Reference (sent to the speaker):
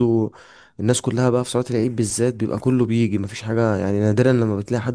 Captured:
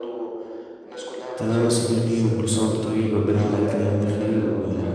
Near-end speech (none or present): present